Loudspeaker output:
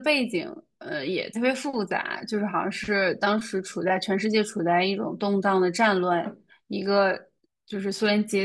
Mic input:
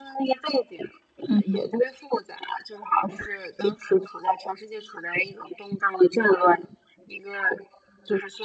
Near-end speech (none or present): present